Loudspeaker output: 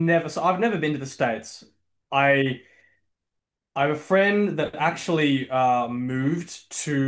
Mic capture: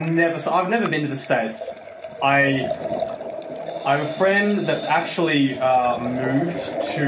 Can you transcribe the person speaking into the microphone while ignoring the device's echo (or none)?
none